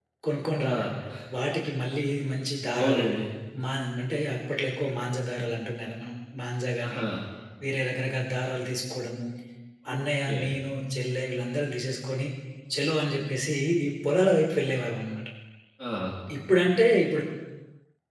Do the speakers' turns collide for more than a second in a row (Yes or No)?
No